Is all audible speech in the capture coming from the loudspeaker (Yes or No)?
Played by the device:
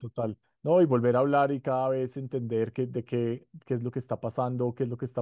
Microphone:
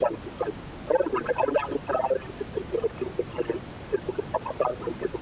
Yes